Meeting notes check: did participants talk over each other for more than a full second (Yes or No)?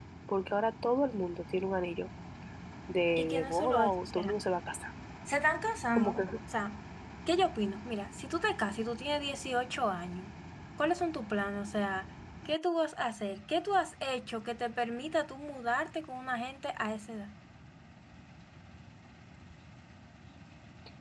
Yes